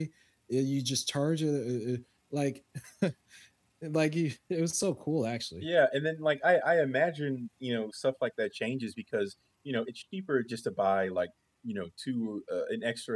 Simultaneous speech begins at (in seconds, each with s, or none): none